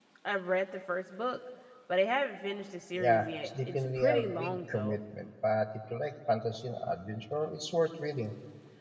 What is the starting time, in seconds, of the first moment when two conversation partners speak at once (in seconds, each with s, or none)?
2.9 s